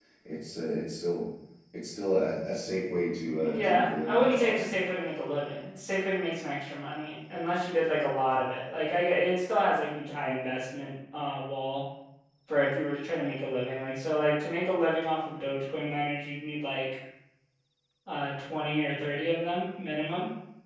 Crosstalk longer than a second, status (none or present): present